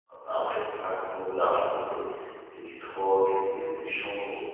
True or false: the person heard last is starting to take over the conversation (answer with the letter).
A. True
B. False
B